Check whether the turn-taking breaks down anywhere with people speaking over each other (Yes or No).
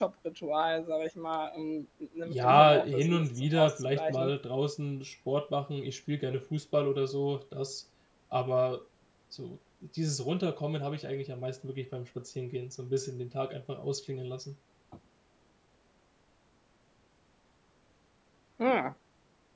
Yes